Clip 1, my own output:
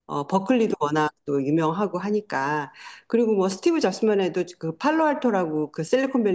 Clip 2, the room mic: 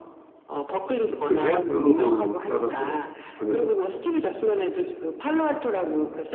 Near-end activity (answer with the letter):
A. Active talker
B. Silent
A